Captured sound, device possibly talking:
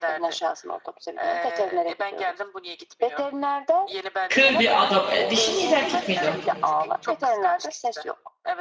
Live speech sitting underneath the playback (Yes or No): No